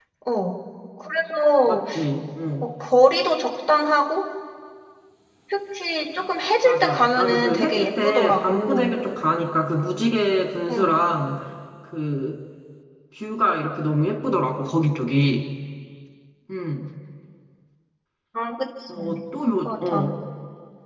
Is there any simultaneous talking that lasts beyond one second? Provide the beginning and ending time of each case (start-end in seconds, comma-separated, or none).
6.6-8.9